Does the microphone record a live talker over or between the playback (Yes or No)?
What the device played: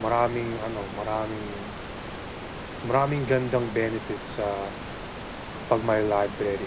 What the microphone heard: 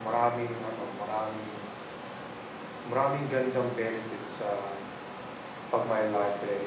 No